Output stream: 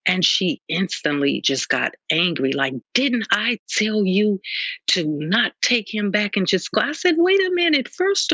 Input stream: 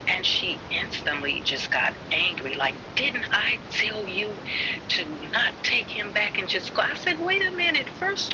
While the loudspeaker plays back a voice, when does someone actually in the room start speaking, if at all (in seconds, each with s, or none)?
none